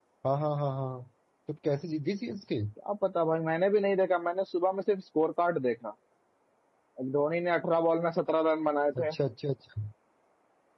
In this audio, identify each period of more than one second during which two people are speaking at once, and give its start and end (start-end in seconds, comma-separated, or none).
none